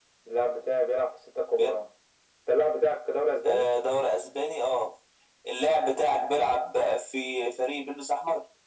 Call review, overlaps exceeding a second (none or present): none